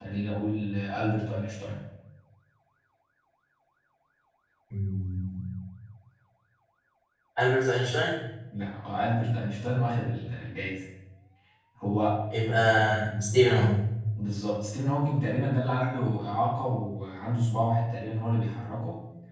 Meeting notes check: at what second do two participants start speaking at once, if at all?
none

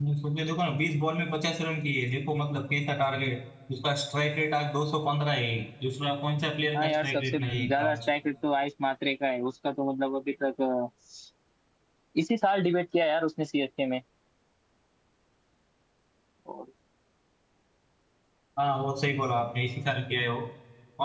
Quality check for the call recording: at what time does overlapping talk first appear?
6.7 s

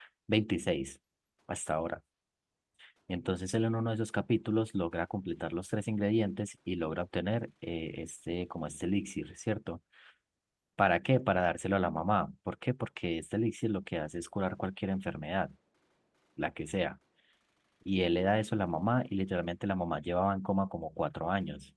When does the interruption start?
none

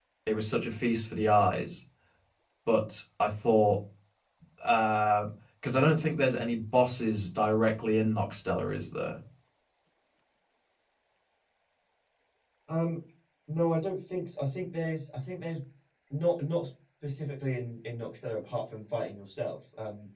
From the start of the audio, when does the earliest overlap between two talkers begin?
none

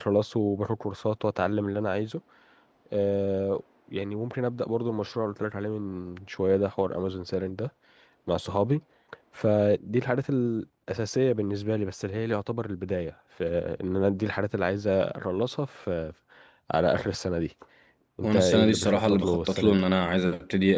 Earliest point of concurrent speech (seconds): 18.2 s

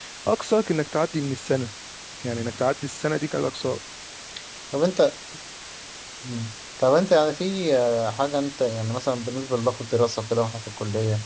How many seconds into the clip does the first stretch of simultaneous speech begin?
none

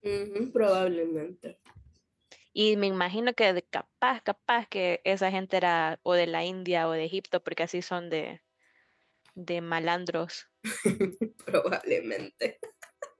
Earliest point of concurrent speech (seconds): none

